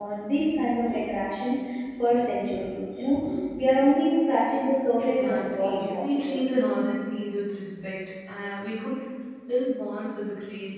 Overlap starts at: 5.0 s

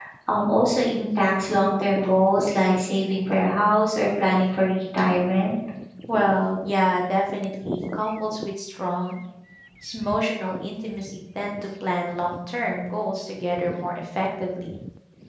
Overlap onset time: none

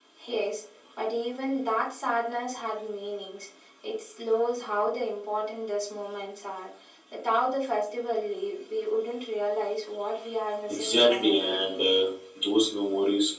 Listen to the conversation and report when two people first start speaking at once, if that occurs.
10.7 s

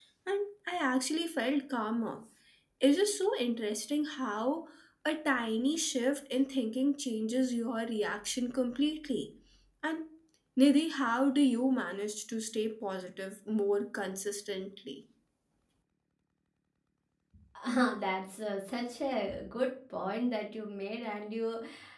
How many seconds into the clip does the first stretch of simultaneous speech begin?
none

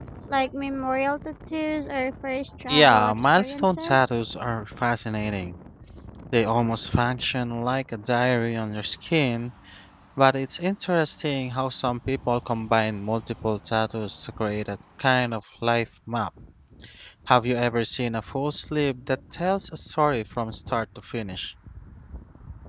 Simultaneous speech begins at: 2.7 s

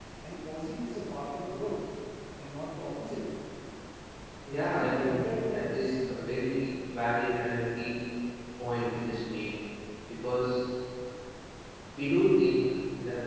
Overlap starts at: 4.6 s

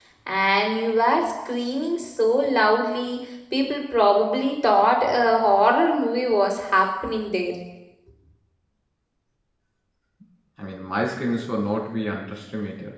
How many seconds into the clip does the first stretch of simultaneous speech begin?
none

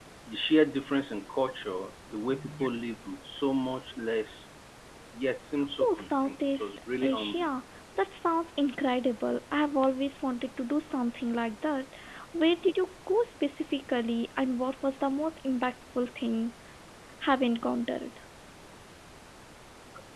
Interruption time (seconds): 5.8 s

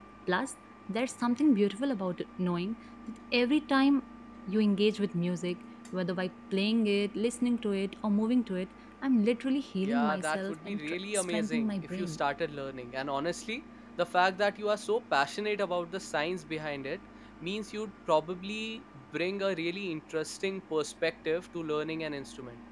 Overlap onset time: 9.8 s

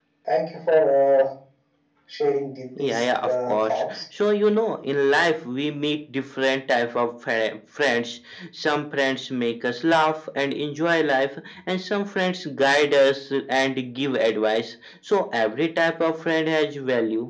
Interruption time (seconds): 2.8 s

